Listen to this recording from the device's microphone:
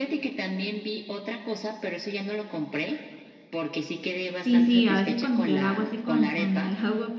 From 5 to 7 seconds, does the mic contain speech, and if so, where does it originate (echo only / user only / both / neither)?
both